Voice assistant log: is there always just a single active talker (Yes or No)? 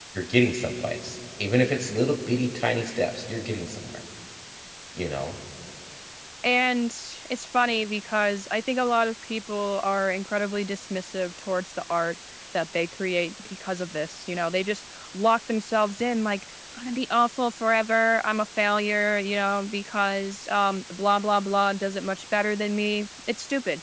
Yes